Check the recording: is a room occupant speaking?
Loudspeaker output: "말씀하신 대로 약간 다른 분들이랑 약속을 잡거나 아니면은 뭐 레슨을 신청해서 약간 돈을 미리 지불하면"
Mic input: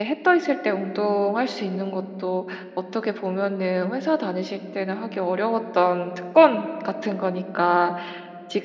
Yes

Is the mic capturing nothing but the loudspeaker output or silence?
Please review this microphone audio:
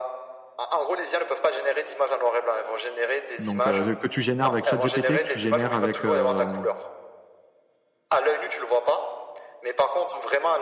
No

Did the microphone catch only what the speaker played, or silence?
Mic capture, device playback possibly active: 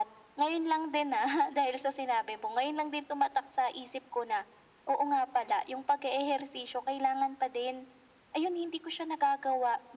Yes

